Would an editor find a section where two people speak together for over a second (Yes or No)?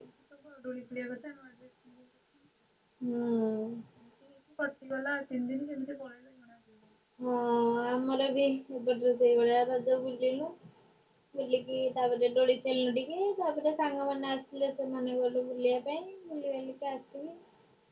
No